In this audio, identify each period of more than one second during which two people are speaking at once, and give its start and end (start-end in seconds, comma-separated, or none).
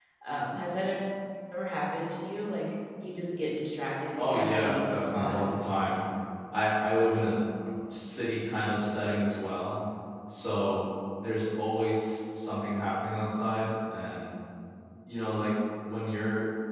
4.2-5.4